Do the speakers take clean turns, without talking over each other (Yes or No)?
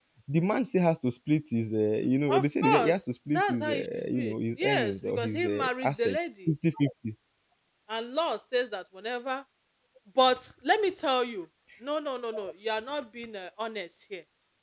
No